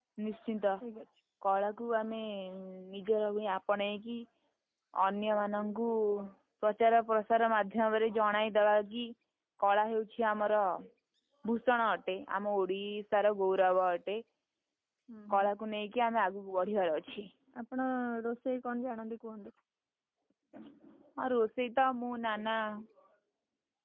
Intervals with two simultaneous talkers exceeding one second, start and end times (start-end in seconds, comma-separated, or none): none